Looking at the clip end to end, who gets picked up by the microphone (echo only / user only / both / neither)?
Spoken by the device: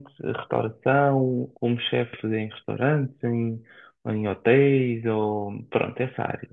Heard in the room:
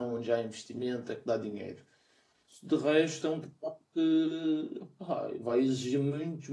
user only